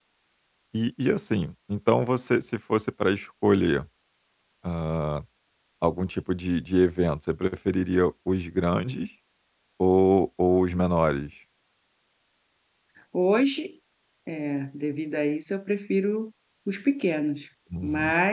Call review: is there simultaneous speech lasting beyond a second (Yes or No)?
No